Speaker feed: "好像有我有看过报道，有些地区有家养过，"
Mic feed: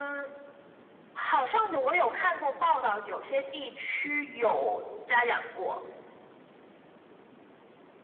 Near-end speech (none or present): none